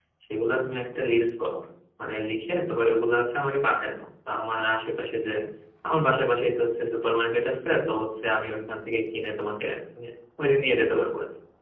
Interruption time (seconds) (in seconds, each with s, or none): none